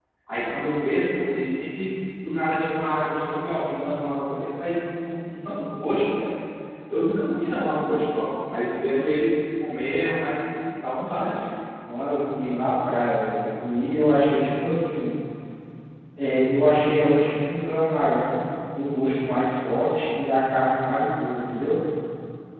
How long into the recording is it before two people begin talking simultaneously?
none

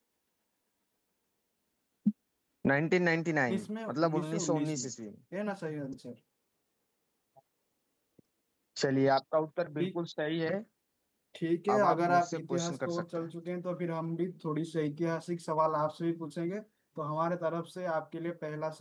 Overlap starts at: 3 s

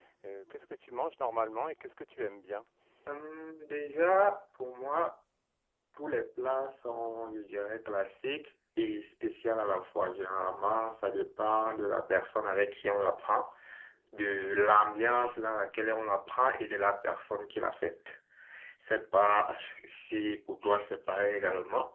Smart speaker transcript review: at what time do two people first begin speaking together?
none

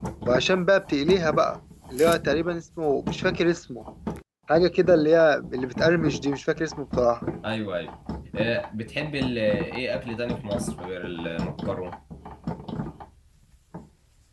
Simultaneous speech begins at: none

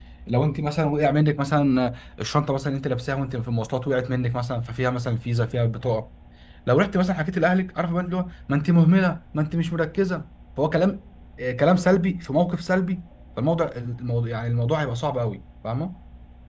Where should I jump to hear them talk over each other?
none

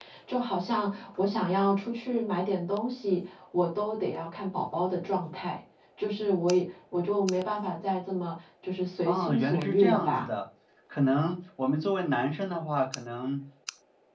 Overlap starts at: 9 s

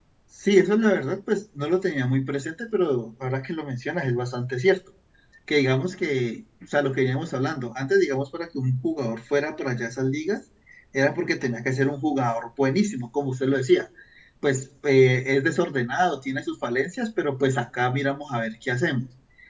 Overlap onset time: none

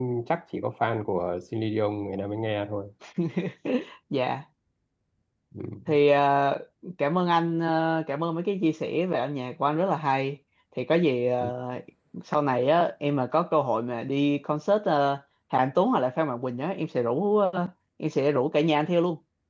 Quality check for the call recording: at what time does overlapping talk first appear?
none

